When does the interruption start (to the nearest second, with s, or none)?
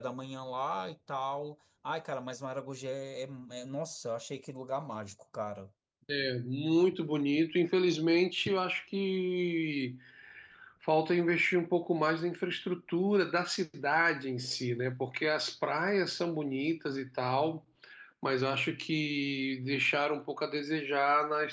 none